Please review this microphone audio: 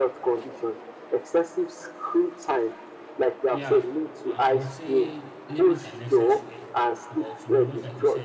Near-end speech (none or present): present